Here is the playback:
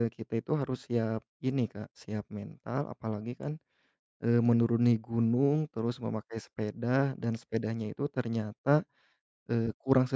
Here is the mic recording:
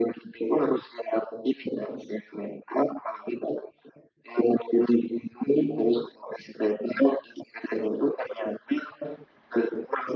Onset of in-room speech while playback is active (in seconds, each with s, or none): none